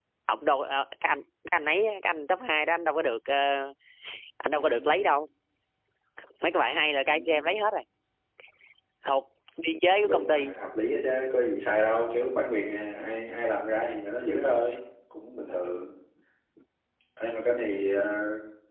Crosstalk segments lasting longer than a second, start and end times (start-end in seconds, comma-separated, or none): none